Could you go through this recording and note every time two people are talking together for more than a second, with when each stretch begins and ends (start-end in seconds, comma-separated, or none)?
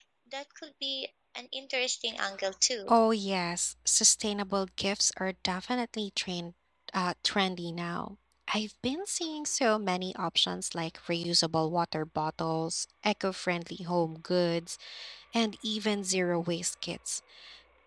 none